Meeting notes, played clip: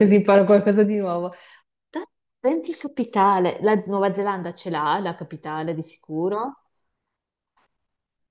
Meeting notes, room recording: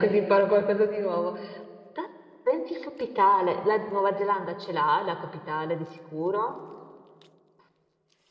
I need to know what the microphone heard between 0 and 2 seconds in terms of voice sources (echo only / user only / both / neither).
echo only